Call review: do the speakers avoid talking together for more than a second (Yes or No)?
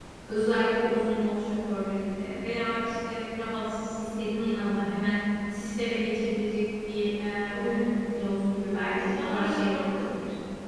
No